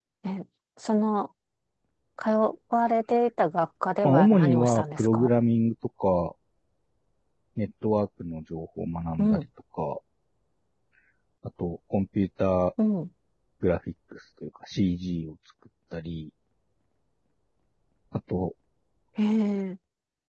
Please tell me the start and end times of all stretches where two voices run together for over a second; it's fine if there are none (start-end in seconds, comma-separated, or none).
4.0-5.3